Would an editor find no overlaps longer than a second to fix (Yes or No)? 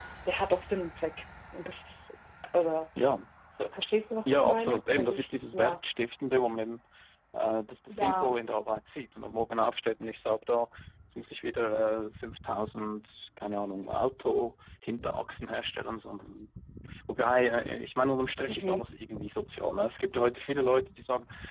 No